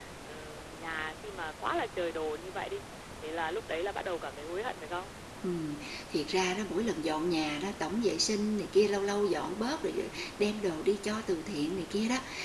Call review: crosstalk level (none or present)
none